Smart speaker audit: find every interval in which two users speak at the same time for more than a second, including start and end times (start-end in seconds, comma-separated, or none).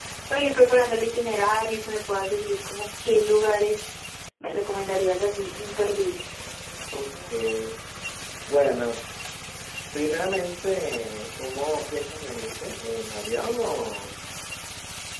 none